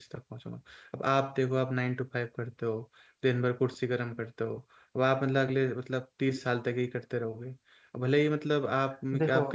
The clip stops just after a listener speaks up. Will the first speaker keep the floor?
No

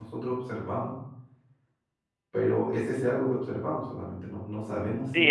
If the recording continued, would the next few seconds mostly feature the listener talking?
Yes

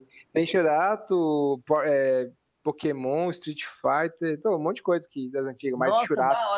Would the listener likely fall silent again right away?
No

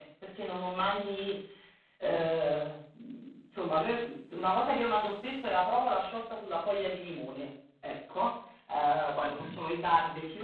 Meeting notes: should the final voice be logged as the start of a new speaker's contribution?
No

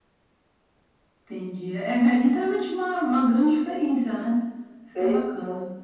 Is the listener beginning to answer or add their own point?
Yes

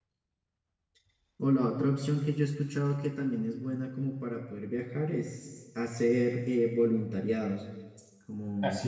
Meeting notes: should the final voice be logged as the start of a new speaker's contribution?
Yes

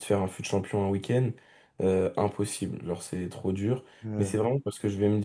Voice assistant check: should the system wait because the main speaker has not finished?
Yes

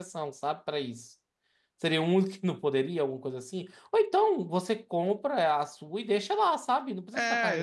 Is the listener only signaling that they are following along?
No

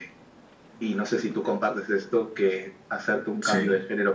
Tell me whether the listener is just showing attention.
Yes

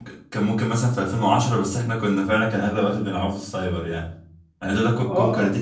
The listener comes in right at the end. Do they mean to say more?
No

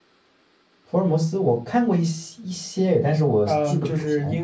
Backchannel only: No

